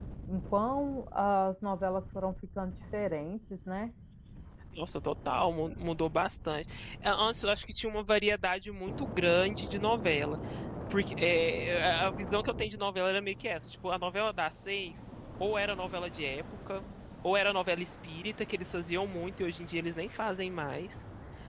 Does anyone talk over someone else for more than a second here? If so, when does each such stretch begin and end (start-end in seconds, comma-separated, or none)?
none